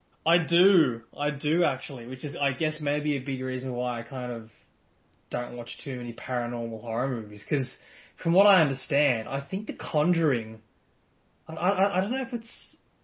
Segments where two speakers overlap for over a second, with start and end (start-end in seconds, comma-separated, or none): none